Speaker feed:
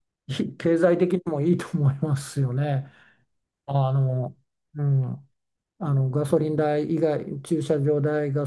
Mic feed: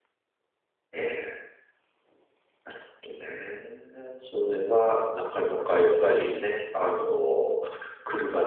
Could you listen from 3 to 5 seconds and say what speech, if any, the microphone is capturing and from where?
user only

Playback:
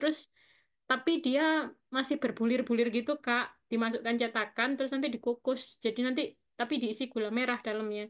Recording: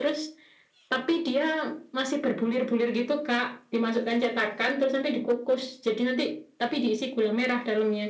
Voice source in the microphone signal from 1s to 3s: echo only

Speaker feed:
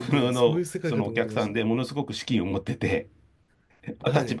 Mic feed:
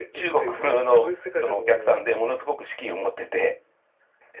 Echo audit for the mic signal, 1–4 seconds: echo only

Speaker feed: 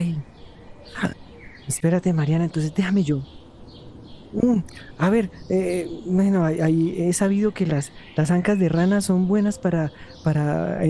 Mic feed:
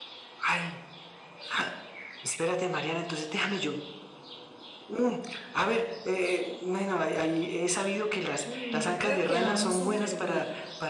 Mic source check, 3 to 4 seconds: echo only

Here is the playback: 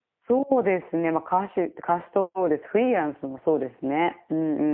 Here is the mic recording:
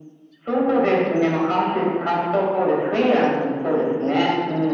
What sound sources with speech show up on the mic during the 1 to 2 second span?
echo only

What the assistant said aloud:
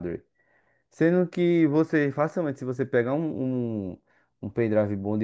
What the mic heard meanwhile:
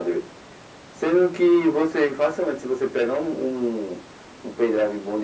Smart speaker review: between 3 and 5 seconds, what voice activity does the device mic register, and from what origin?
echo only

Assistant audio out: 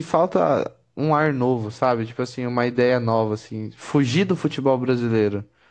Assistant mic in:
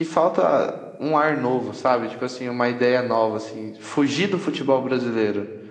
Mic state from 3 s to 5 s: echo only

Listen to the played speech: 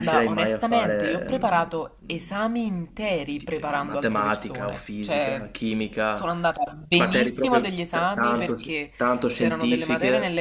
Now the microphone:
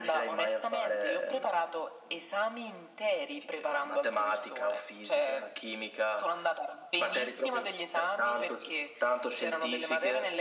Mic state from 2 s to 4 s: echo only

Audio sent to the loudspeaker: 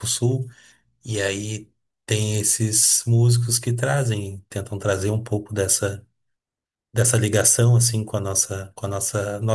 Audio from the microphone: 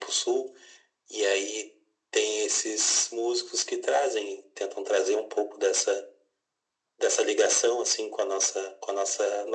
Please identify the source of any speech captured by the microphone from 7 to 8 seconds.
echo only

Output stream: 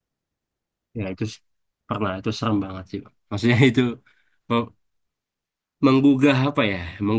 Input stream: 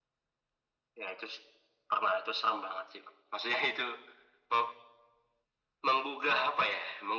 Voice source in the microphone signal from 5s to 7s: echo only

